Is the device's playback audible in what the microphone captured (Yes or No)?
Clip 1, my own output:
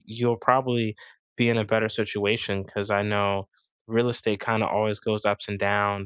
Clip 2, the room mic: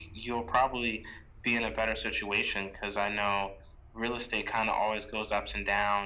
Yes